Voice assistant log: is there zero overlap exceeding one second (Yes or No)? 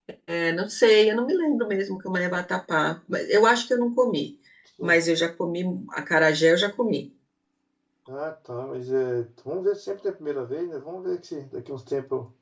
Yes